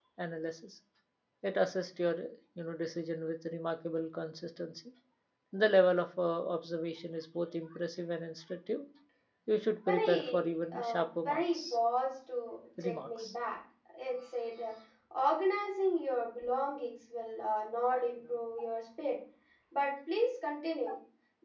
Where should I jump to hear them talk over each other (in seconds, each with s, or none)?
9.9 s